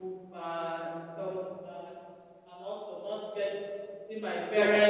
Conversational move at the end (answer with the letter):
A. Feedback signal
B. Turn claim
A